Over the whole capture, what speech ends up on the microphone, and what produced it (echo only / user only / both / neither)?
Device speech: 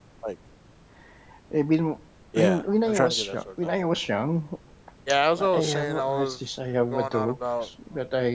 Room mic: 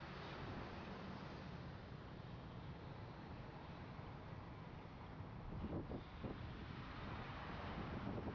neither